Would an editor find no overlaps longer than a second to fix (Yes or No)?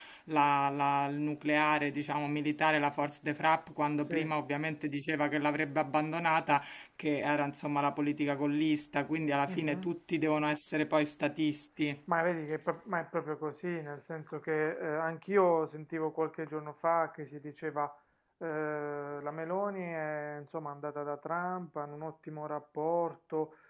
Yes